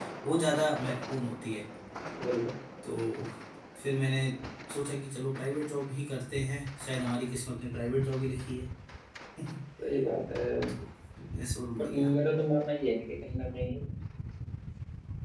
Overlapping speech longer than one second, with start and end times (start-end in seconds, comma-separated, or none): none